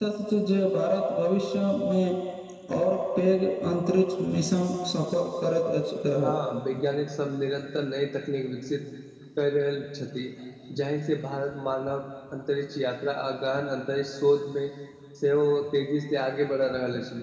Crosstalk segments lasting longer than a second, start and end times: none

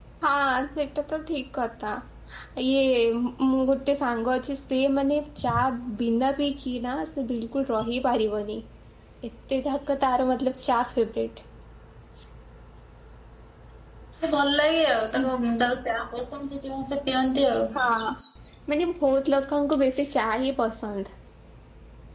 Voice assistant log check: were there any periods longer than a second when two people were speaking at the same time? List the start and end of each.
none

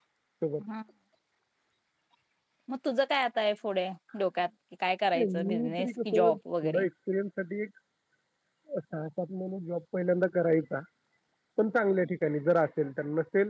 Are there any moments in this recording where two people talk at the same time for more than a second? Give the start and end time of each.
5.1-6.8

